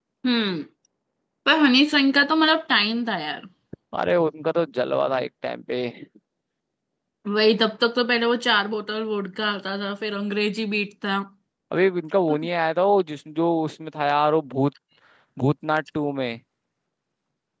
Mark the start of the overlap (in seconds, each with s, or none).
none